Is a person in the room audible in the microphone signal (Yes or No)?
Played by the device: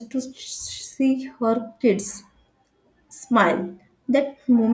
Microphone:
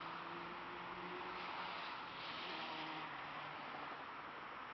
No